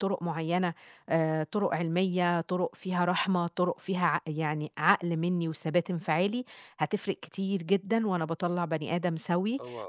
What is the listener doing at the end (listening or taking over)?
listening